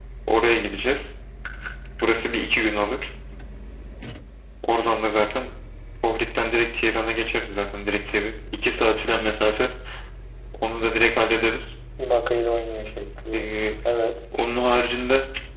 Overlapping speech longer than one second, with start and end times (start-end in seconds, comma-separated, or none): none